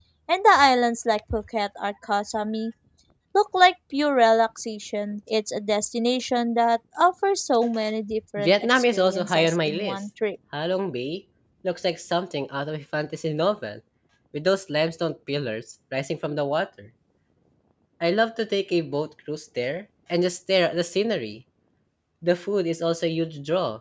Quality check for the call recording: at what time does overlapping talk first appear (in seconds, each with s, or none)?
8.4 s